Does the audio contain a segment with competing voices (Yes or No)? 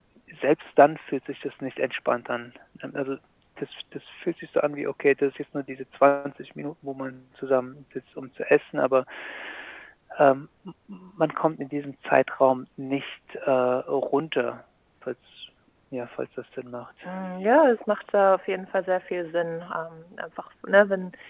No